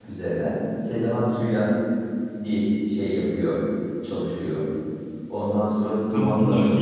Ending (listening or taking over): taking over